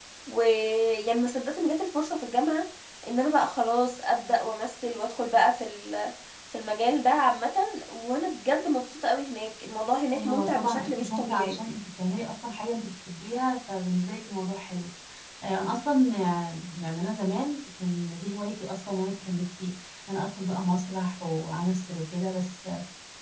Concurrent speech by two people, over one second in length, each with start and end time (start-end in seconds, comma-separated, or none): 10.1-11.6